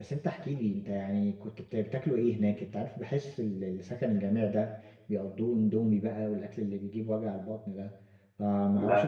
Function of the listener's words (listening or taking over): listening